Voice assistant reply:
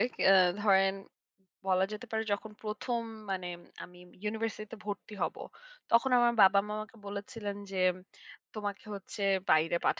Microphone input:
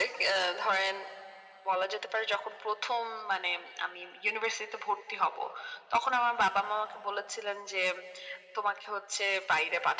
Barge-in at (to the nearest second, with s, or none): none